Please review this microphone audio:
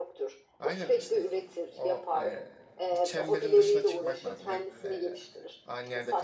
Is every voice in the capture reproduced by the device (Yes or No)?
No